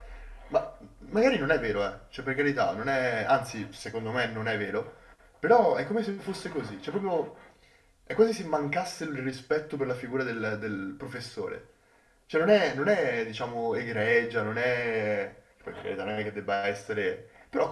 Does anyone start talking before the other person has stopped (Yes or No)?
No